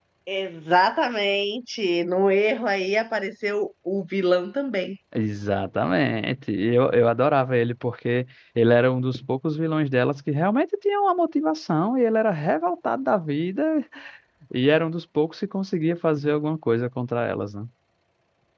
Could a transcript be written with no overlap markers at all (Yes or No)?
Yes